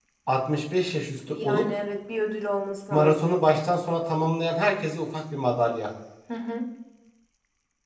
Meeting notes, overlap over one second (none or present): none